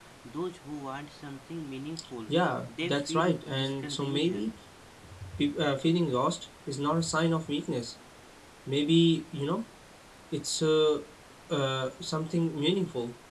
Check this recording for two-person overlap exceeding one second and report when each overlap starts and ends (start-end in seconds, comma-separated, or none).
2.8-4.5